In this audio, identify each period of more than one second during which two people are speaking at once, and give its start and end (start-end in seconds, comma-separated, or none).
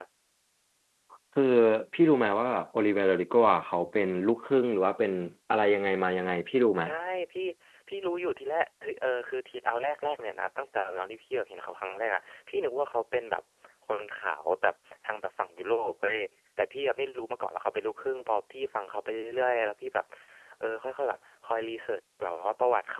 none